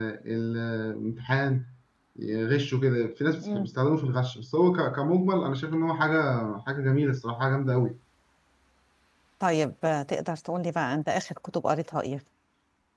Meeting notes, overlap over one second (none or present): none